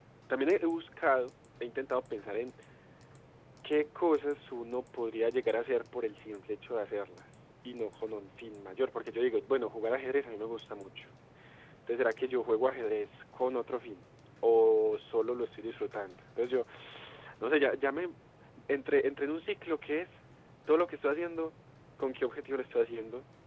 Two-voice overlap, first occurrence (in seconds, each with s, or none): none